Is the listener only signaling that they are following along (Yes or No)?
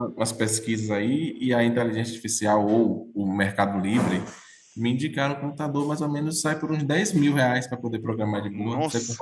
No